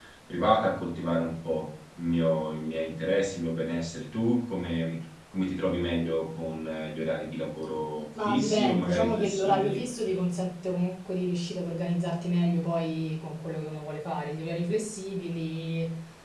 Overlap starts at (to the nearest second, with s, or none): 8 s